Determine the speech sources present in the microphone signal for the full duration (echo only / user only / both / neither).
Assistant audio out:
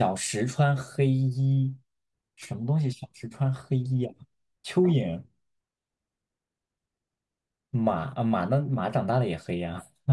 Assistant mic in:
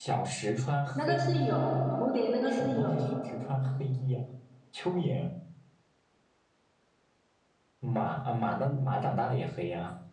both